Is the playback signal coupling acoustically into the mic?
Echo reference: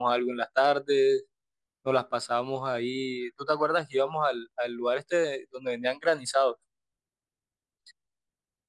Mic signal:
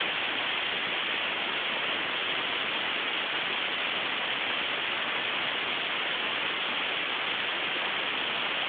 No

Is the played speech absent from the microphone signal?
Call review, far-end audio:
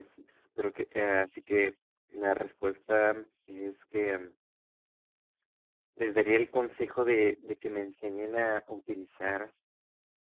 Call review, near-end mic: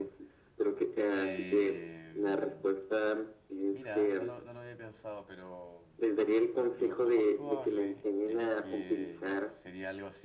No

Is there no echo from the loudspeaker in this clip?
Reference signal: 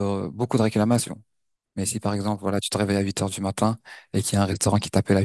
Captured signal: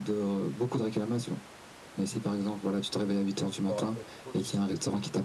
No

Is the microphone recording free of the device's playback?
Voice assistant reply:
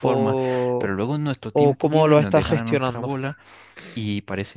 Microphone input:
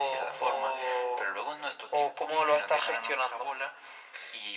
No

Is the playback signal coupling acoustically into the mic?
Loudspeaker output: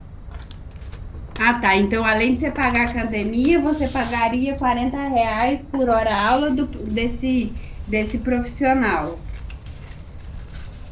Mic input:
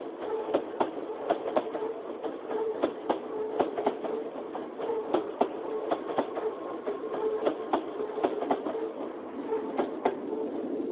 No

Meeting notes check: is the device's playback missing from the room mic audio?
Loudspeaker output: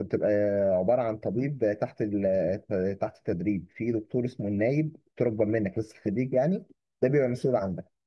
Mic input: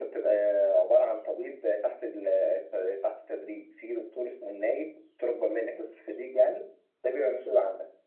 No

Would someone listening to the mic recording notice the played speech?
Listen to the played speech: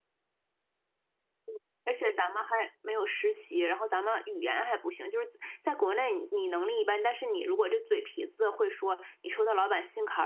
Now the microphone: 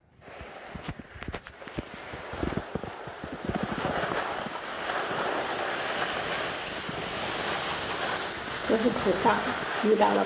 No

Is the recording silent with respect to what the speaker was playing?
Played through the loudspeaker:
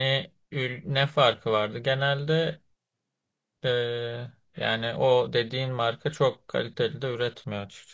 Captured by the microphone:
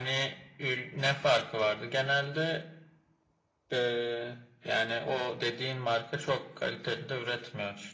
No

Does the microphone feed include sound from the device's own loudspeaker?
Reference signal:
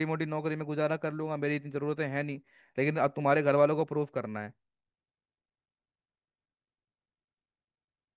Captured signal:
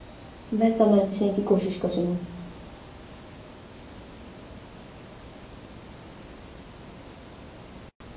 No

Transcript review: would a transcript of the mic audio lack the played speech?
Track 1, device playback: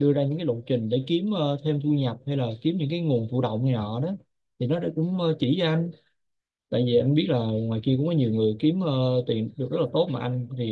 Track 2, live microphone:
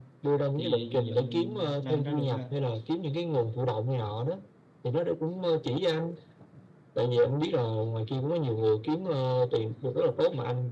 No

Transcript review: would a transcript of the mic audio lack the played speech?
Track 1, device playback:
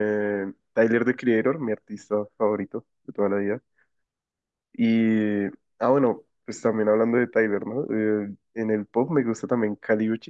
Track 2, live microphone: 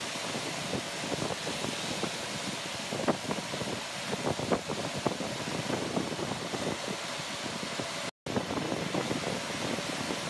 Yes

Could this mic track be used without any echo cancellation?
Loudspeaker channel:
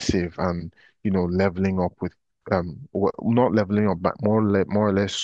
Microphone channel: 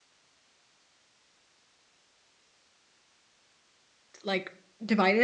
Yes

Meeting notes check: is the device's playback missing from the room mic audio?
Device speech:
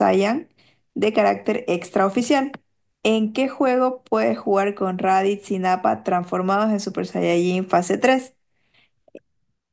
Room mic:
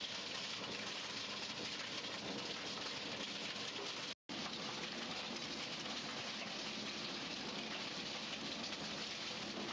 Yes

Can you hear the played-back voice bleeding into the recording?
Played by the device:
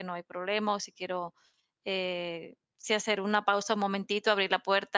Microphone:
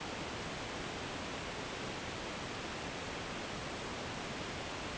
No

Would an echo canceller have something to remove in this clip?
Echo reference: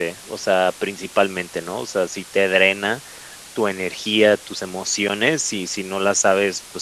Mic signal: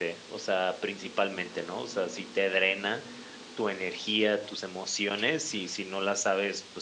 Yes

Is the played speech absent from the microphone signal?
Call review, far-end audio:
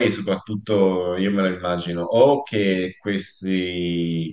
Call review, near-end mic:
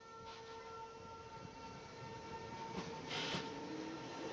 Yes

